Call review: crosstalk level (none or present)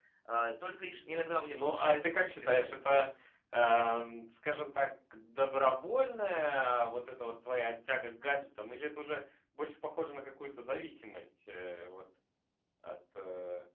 present